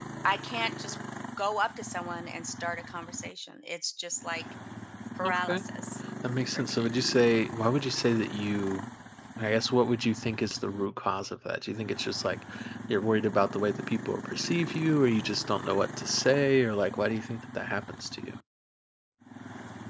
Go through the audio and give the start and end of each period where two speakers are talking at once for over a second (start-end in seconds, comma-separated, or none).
none